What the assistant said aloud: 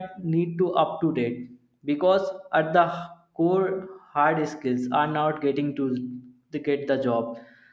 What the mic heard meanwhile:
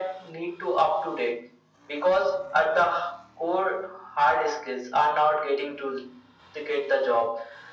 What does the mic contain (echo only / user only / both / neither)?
echo only